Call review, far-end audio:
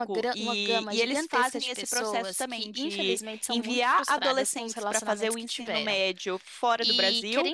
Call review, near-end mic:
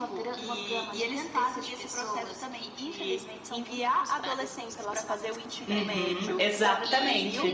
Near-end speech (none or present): present